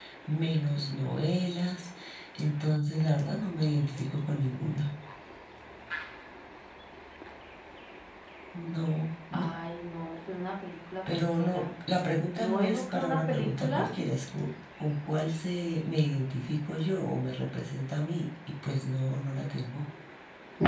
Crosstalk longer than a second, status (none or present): present